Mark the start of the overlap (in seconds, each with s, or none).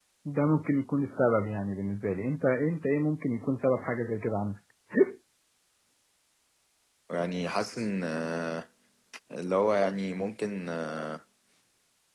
none